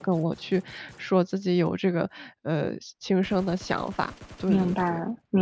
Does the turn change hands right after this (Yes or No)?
Yes